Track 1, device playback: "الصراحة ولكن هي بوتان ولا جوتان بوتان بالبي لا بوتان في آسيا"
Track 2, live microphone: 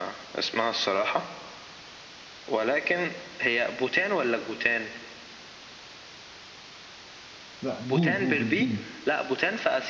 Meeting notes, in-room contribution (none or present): present